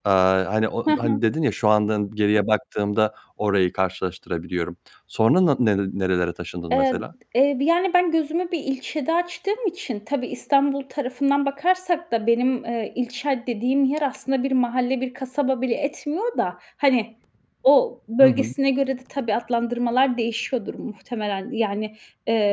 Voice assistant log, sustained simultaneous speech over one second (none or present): none